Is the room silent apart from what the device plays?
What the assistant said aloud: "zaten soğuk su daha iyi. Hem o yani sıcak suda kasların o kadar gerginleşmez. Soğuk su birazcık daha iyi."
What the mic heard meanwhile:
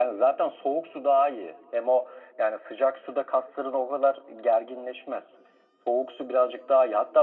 Yes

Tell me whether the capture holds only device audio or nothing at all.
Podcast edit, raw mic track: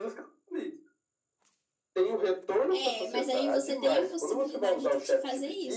No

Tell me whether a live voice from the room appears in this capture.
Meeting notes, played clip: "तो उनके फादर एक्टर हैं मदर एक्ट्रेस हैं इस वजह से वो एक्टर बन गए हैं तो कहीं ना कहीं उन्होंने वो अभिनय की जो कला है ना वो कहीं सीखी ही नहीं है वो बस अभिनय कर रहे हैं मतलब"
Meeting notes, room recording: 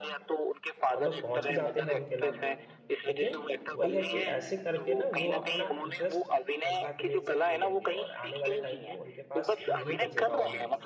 Yes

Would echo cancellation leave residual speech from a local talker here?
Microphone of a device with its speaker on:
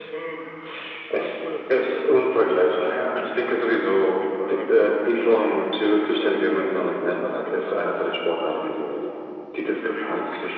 No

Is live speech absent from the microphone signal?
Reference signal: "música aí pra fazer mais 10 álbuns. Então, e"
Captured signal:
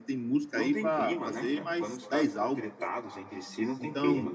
No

